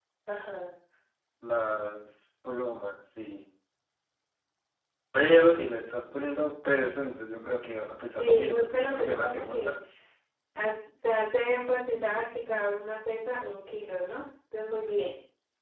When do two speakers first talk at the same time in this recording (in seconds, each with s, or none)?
8.1 s